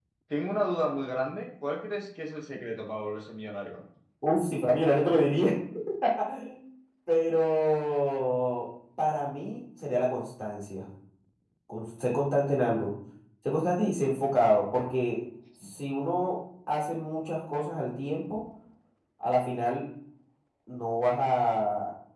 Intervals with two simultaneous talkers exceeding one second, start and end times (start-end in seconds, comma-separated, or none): none